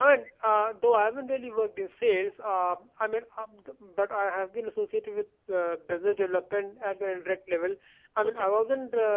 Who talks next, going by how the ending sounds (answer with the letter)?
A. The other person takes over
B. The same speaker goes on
B